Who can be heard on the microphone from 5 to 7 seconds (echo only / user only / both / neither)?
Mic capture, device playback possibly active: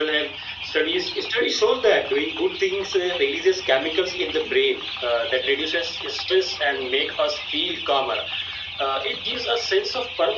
echo only